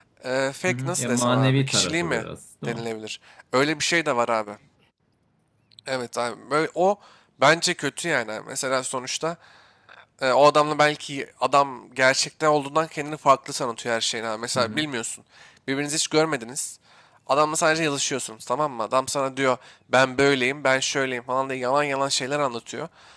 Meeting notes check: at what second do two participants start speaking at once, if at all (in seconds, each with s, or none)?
0.7 s